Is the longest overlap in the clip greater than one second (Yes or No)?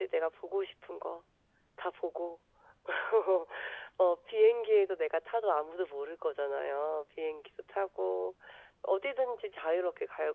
No